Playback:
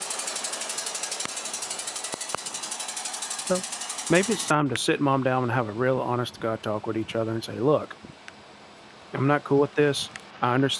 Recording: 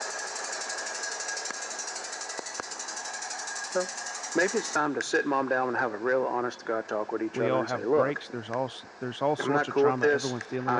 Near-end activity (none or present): present